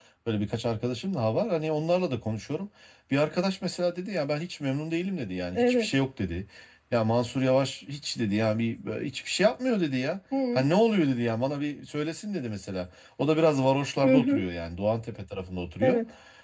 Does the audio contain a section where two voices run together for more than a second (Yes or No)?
No